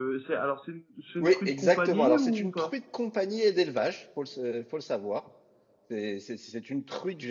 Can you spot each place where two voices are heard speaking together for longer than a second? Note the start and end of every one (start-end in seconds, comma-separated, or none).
1.2-2.7